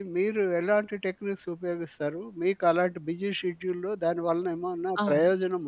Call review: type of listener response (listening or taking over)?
listening